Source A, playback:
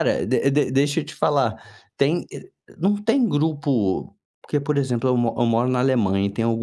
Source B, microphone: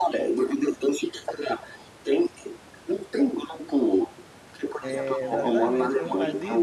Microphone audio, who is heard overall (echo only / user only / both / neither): both